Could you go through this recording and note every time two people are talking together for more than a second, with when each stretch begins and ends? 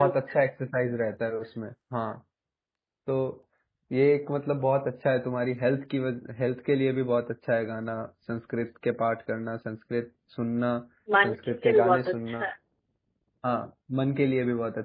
11.2-12.4

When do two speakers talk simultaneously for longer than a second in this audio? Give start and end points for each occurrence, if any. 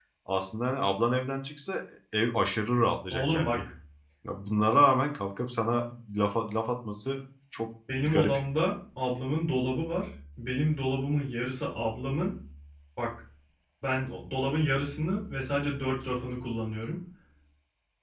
none

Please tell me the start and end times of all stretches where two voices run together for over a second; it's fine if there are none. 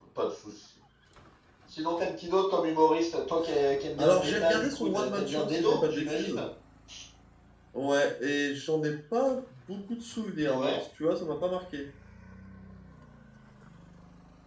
4.0-6.4

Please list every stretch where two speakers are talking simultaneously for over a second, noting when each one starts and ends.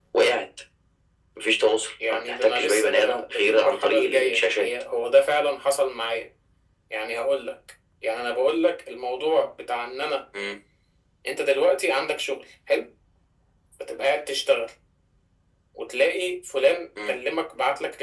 2.1-4.7

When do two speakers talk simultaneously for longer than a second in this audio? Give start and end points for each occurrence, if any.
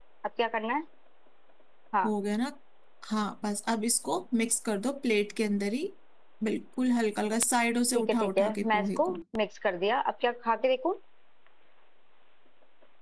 7.9-9.2

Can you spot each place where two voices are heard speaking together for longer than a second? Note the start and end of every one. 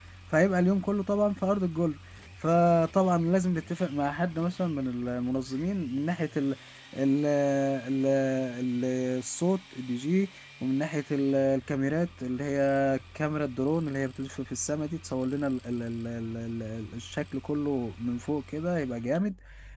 none

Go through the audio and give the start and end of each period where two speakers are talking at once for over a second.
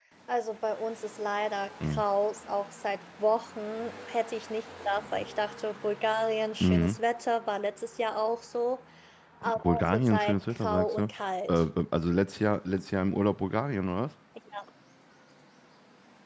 9.6-11.1

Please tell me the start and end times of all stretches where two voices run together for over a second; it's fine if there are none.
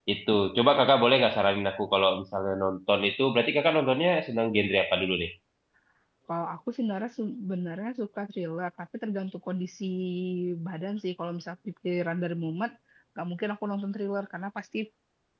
none

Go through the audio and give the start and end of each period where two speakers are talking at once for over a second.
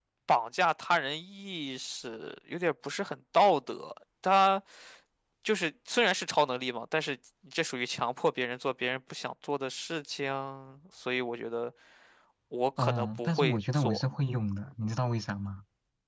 12.8-14.0

